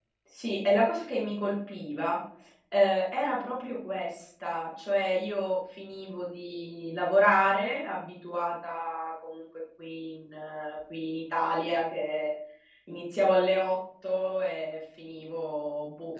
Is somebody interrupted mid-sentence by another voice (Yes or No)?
No